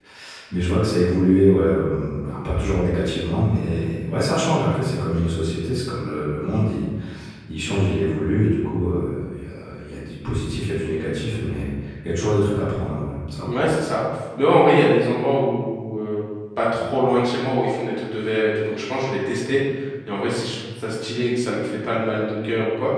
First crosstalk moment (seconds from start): none

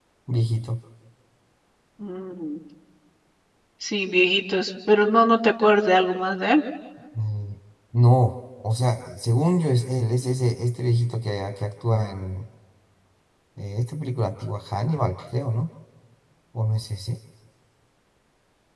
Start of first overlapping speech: none

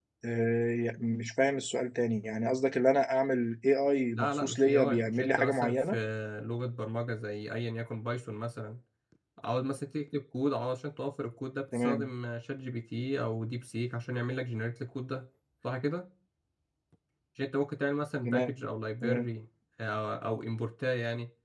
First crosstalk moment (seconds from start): 4.2 s

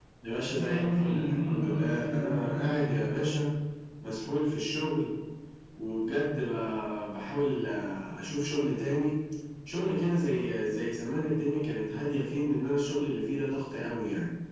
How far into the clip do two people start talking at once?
0.6 s

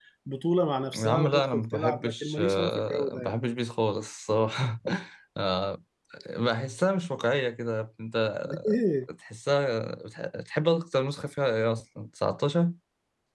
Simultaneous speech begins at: 0.9 s

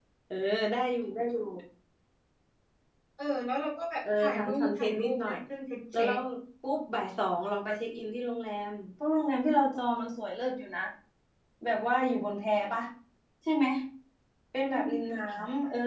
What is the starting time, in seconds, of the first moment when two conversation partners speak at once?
4.2 s

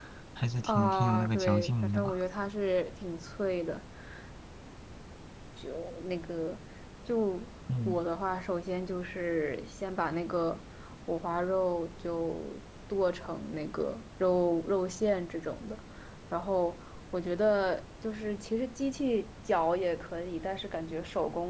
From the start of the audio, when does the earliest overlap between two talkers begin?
0.6 s

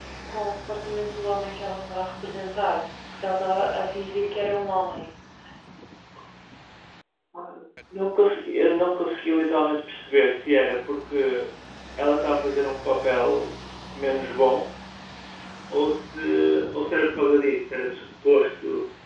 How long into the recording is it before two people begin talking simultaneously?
none

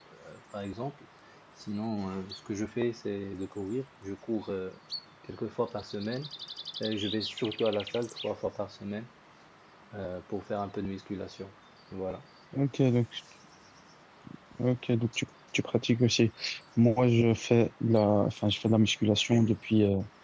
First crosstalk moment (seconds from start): none

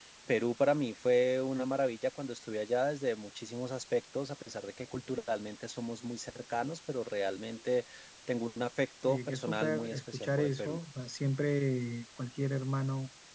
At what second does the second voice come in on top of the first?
9.0 s

